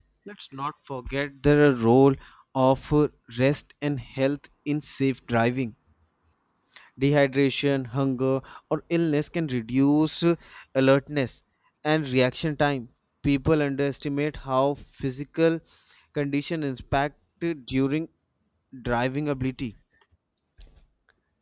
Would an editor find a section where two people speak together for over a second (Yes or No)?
No